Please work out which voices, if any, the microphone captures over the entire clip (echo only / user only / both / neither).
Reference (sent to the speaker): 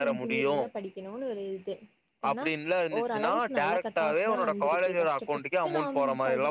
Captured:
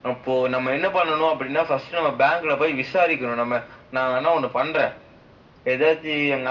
user only